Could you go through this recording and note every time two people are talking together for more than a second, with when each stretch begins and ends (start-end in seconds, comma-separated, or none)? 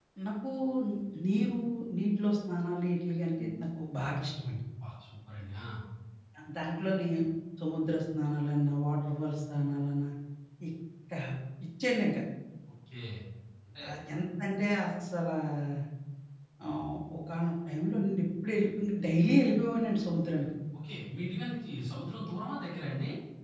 none